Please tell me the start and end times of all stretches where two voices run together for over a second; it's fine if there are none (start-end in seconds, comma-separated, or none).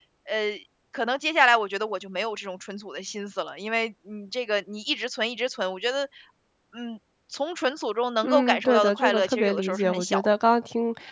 8.2-10.3